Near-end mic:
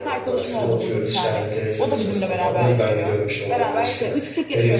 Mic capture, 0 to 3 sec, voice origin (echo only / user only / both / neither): both